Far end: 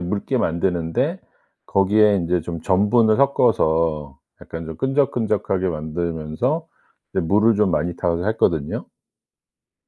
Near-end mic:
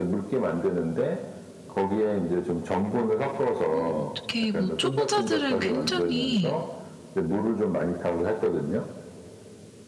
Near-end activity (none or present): present